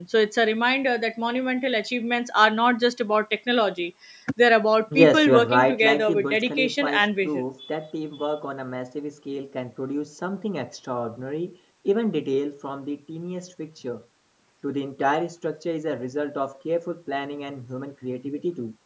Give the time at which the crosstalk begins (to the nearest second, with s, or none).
5 s